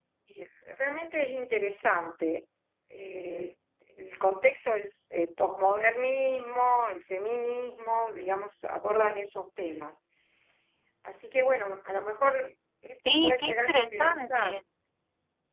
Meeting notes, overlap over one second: present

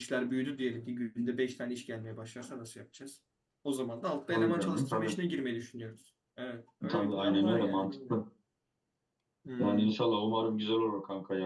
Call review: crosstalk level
present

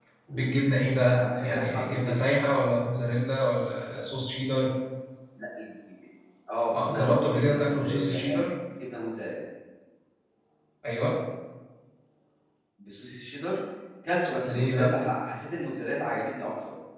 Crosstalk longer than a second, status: present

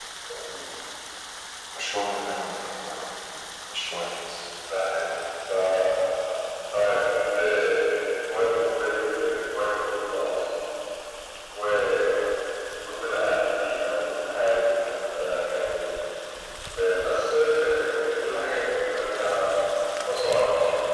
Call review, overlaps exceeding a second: none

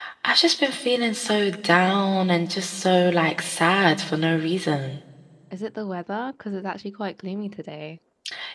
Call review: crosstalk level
none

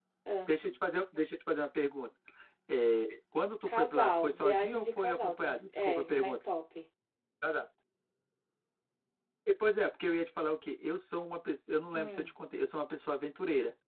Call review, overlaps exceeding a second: present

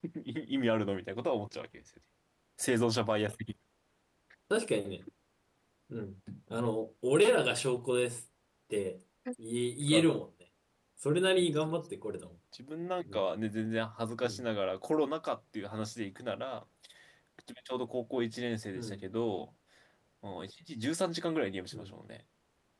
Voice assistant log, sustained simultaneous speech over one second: none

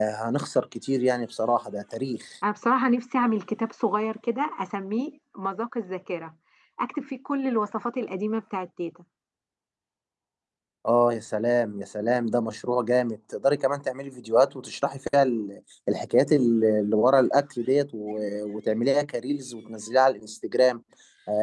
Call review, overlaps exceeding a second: none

